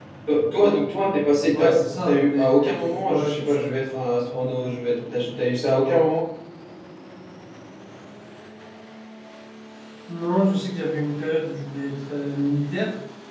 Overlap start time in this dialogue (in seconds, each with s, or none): 1.5 s